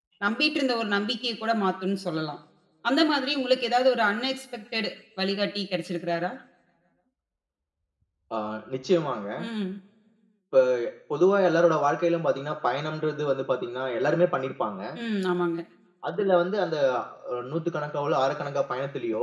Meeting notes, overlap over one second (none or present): none